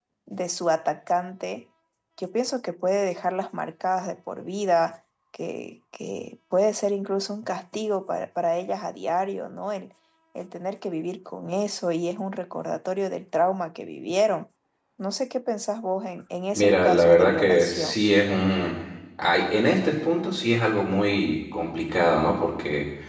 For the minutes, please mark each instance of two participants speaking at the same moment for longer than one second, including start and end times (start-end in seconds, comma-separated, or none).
16.5-18.0